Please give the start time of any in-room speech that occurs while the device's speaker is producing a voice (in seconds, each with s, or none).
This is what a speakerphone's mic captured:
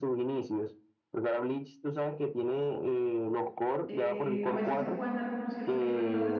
3.9 s